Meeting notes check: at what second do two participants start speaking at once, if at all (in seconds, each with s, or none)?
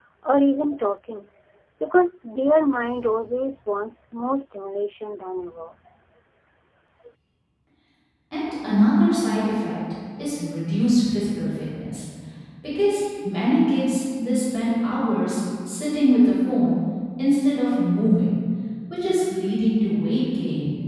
none